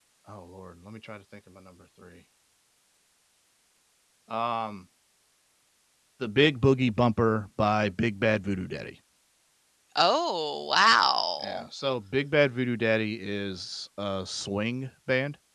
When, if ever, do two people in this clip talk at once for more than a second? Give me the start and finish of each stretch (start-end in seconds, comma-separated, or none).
none